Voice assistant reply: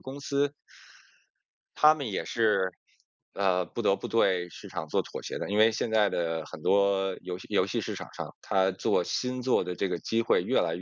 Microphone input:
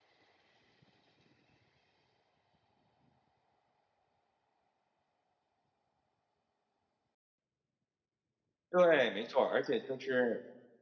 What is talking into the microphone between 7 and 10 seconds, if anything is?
user only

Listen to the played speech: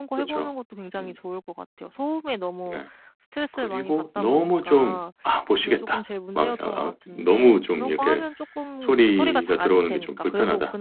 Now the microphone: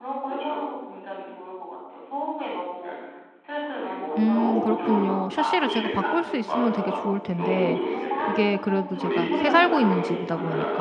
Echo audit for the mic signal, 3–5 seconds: both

